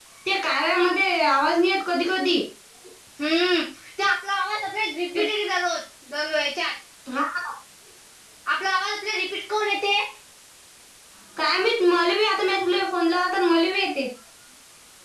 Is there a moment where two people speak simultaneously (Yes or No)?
No